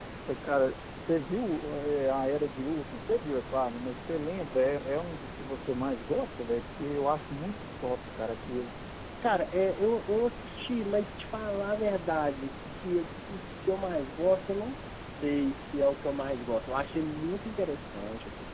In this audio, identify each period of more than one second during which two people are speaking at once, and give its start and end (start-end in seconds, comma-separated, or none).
none